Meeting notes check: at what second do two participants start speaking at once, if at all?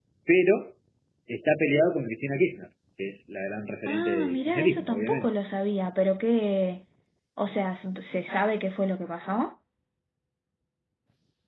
3.9 s

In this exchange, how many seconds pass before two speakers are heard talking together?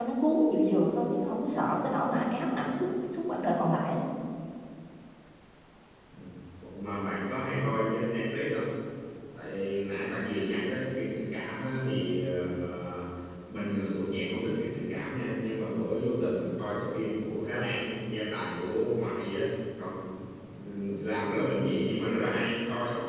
none

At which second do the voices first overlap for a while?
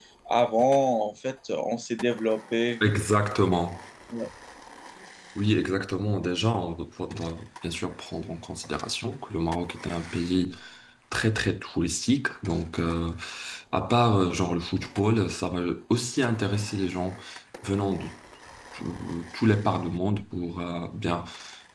none

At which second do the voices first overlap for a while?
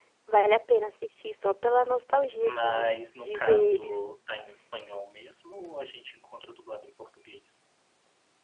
2.4 s

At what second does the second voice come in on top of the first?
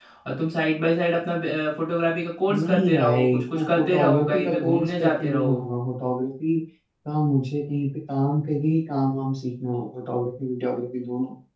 2.5 s

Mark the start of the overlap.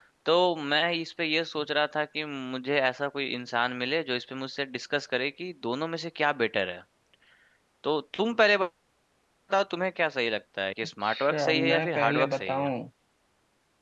11.0 s

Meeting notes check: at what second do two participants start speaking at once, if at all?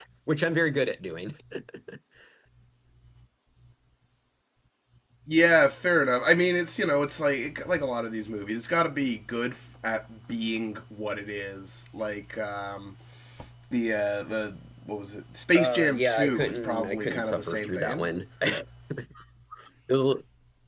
15.6 s

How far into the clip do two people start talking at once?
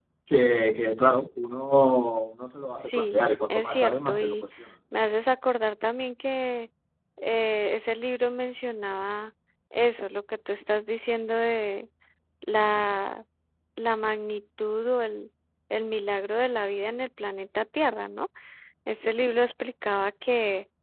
2.9 s

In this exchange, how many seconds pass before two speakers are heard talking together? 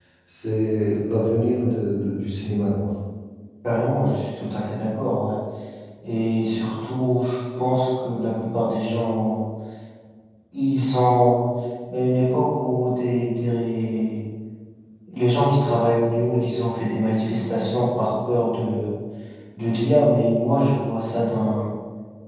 none

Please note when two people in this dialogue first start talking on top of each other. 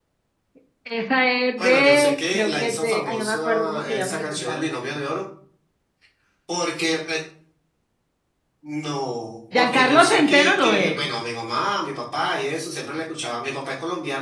1.6 s

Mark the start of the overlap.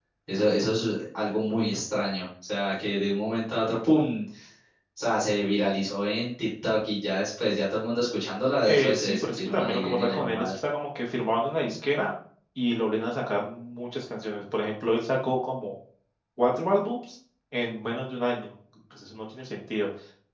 8.7 s

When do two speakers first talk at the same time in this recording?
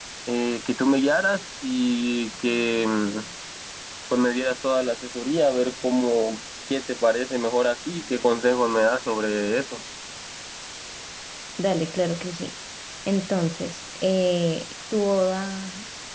none

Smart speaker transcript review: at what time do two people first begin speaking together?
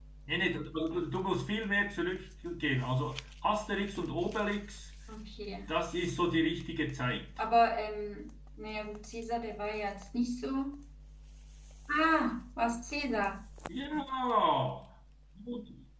none

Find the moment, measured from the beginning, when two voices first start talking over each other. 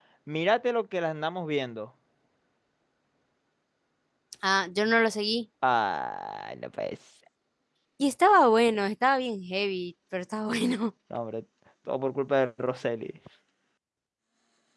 none

